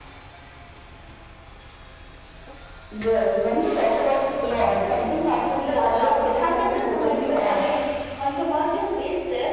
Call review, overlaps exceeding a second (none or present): present